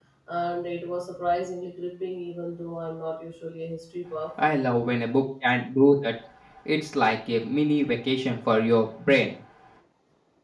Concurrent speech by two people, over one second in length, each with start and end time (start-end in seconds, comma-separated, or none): none